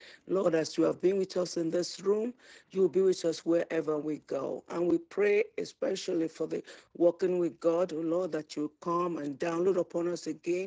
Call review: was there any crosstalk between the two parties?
No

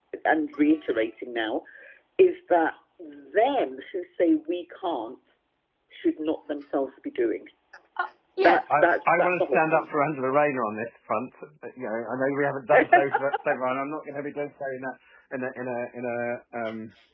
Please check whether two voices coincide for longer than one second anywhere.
Yes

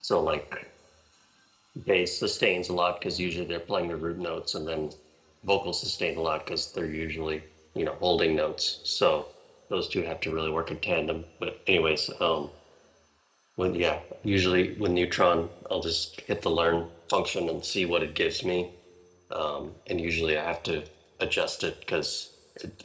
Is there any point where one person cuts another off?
No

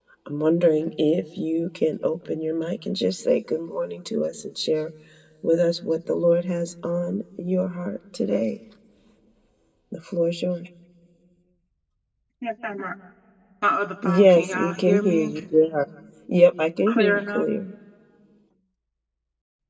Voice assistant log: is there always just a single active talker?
No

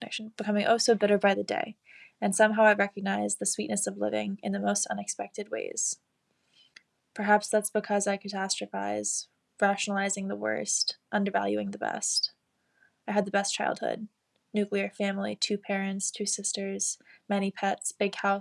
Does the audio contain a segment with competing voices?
No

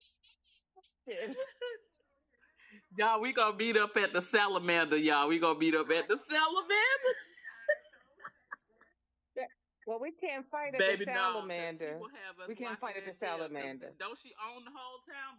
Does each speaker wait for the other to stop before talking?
No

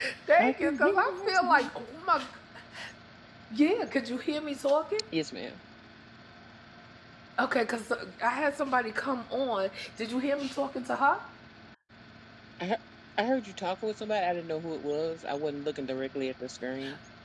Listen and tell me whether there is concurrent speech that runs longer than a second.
Yes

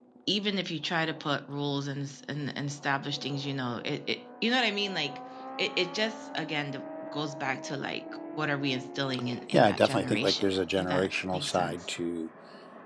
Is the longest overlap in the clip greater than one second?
Yes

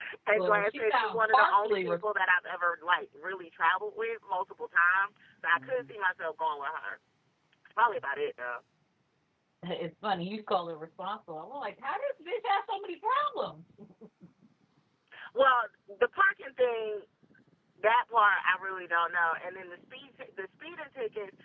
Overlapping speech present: Yes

